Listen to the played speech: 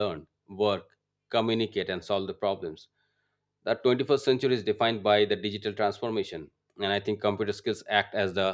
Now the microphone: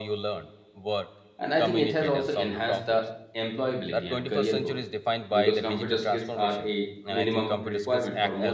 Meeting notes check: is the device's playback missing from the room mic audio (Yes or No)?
No